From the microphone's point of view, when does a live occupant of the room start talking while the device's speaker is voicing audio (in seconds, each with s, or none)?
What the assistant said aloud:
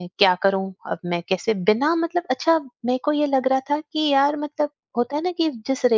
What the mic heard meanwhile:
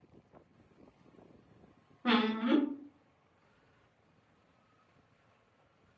2.1 s